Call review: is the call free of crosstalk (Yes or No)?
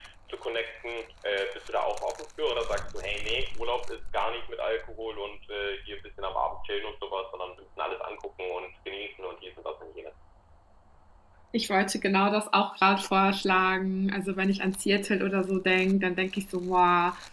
Yes